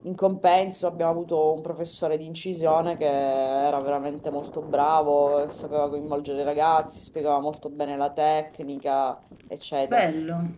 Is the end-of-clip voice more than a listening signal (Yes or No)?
Yes